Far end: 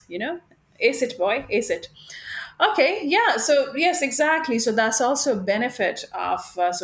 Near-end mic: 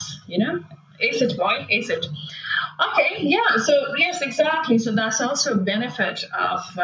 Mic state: echo only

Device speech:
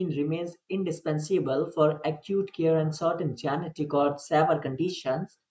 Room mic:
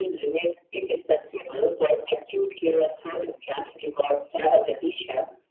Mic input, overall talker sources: echo only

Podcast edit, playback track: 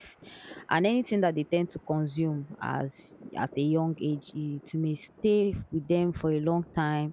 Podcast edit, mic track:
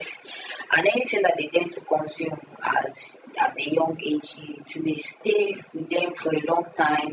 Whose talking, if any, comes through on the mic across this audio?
echo only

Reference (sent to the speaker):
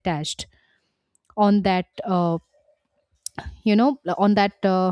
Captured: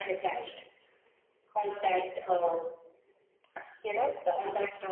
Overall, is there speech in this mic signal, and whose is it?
echo only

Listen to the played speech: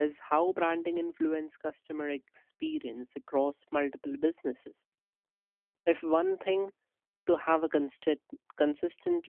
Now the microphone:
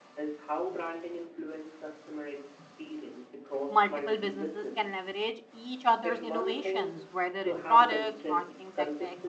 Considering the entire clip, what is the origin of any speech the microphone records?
both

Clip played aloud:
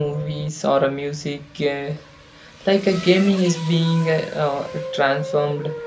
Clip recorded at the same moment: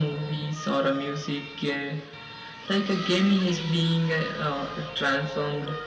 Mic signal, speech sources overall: echo only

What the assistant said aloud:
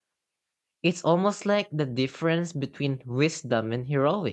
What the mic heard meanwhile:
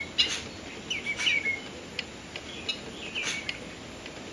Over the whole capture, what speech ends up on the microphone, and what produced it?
neither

